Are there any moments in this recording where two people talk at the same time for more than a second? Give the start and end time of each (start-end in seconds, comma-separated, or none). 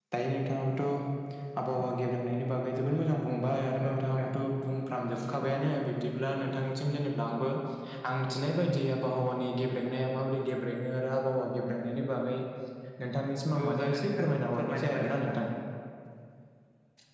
13.6-15.3